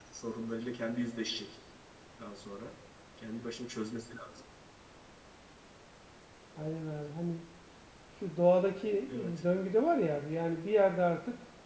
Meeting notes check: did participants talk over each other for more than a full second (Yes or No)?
No